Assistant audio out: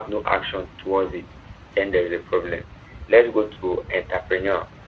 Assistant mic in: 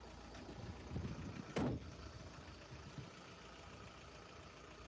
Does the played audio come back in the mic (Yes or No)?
No